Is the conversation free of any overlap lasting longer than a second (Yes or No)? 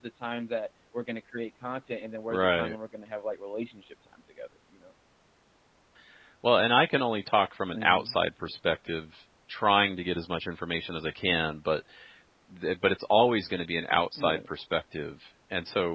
Yes